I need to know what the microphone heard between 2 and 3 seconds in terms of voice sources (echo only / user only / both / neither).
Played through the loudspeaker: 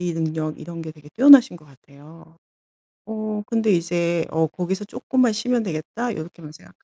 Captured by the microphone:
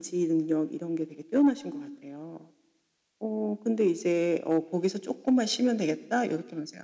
echo only